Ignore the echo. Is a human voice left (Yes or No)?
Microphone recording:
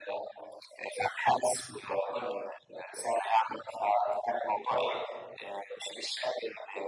No